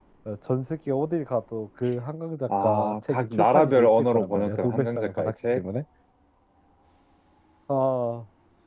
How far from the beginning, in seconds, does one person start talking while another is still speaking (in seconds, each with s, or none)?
2.5 s